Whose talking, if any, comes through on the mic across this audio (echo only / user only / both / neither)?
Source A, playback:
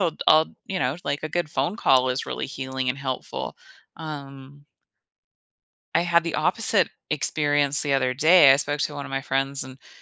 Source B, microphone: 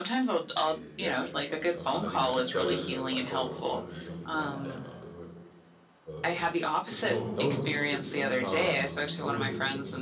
both